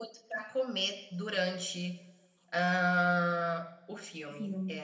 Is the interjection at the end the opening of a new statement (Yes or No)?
No